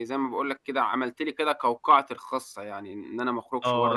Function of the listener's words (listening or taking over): taking over